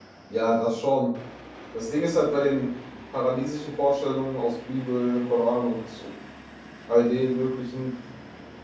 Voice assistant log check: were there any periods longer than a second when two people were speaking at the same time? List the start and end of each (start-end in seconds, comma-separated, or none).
none